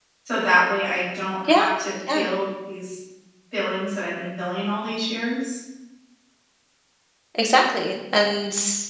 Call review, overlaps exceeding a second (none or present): none